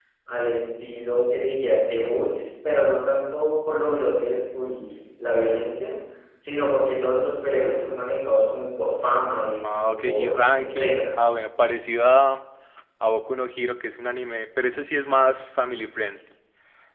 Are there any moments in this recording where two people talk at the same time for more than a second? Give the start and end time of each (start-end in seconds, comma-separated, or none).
9.7-11.2